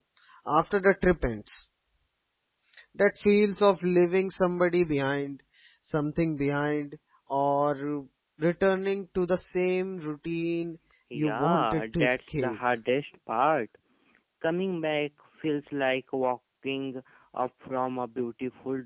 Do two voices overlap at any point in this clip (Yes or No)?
Yes